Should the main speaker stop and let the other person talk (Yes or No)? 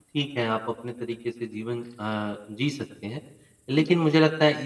No